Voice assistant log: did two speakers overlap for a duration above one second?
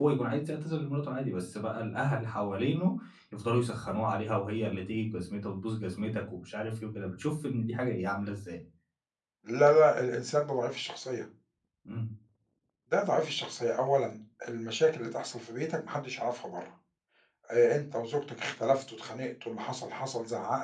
No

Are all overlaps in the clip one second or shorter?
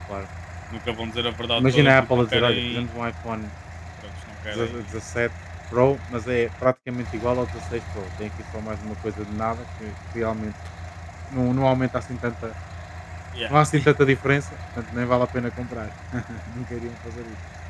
No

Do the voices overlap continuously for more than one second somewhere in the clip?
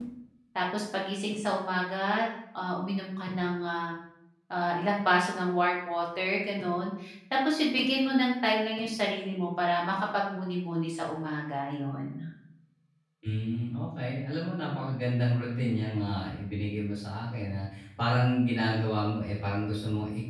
No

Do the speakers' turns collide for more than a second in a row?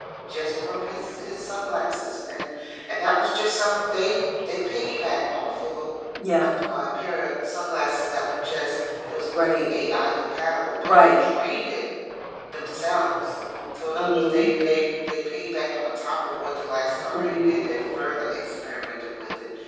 No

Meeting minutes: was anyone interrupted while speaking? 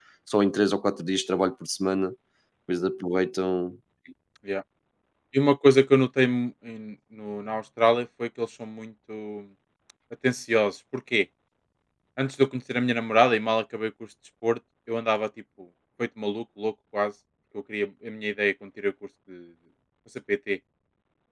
No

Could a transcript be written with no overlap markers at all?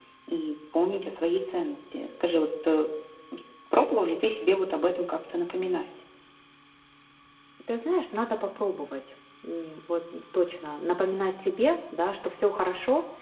Yes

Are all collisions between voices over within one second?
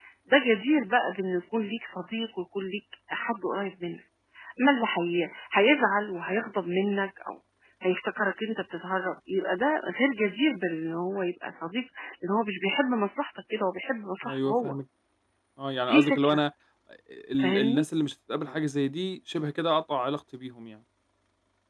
Yes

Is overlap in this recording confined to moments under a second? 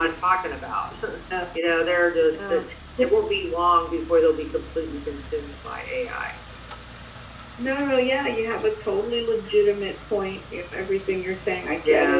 Yes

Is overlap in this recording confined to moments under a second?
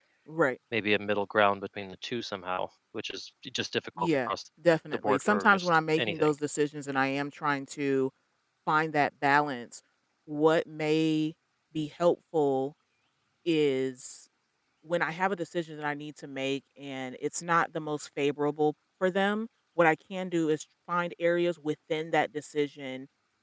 No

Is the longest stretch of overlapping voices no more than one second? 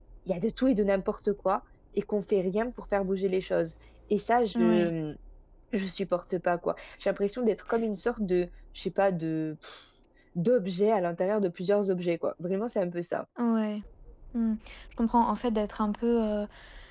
Yes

